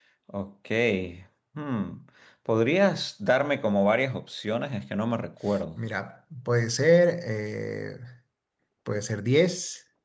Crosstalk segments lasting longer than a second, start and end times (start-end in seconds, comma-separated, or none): none